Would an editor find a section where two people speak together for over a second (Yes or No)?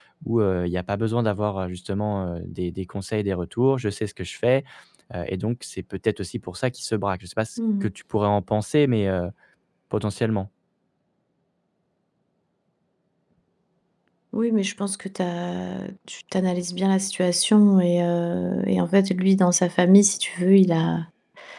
No